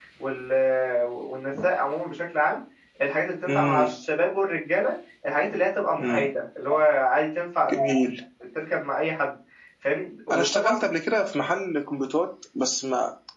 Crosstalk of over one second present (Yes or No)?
No